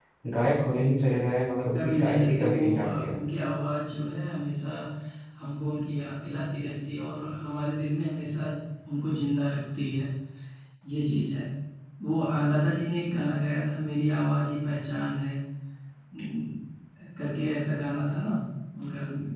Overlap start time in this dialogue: 1.7 s

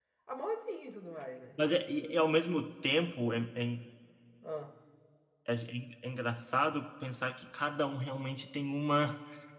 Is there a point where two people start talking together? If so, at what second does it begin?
none

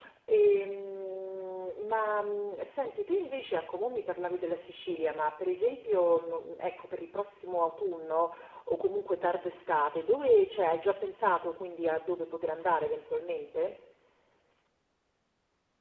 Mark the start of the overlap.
none

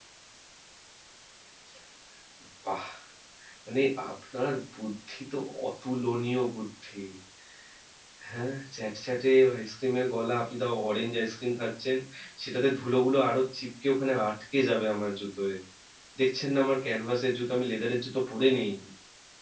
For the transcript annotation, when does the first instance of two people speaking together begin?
none

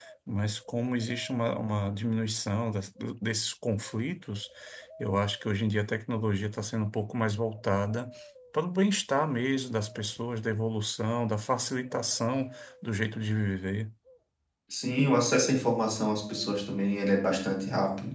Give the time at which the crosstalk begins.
none

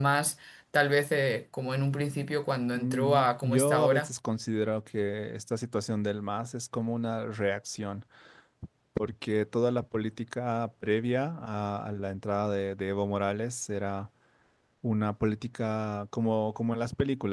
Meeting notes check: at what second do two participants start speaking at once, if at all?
2.7 s

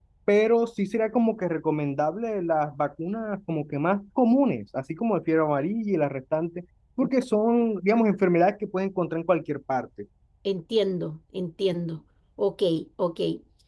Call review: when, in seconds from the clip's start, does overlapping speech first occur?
none

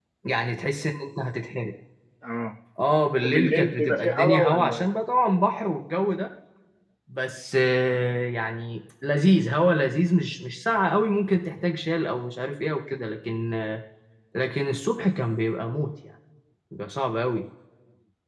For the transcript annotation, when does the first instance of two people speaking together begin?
3.2 s

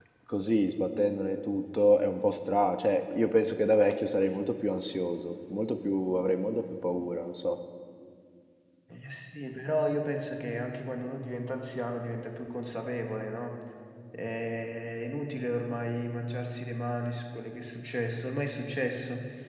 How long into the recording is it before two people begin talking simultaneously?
none

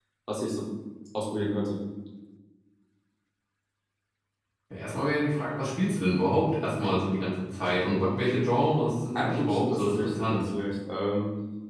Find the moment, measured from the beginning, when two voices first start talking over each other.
9.2 s

